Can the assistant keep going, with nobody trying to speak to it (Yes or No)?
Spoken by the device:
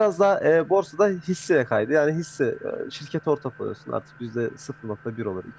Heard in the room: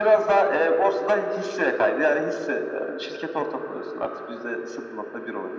Yes